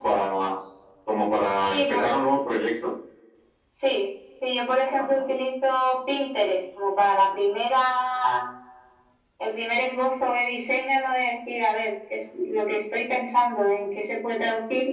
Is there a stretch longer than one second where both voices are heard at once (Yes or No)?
No